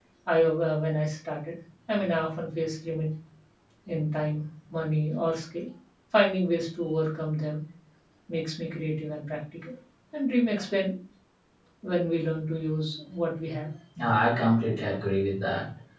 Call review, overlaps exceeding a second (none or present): none